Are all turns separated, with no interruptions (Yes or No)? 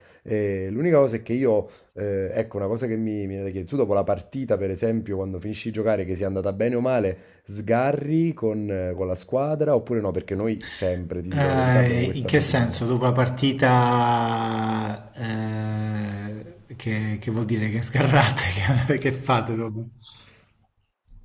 No